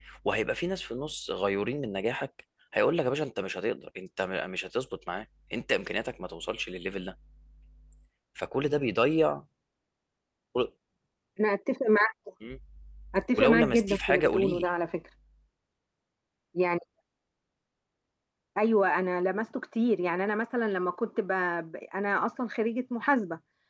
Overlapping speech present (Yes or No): Yes